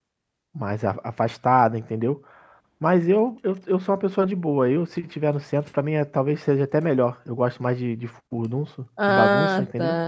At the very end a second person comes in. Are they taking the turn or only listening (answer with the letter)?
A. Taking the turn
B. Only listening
A